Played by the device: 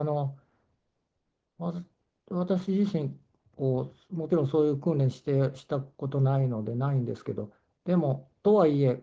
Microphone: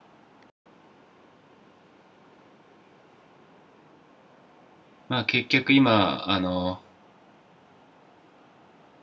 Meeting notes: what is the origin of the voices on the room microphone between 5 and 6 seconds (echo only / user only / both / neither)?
user only